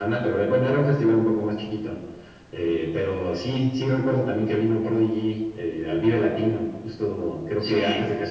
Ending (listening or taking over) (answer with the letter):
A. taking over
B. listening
B